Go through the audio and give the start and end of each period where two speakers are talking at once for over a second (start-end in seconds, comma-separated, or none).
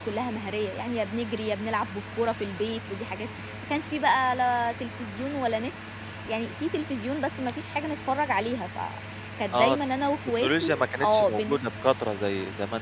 10.4-11.6